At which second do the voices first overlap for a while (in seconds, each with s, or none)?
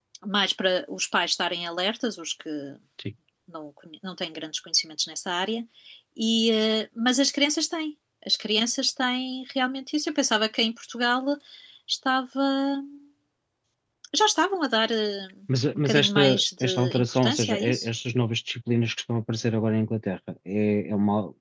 15.8 s